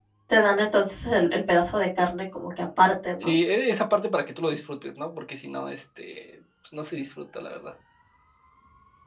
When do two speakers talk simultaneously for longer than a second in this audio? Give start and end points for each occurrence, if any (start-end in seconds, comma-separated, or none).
none